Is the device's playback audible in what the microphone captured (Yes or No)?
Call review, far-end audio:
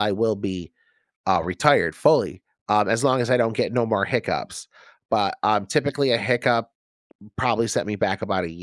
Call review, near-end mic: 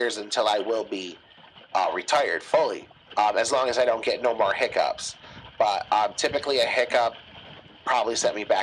Yes